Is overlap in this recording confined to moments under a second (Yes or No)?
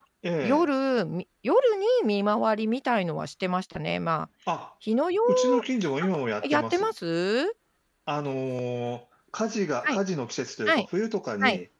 Yes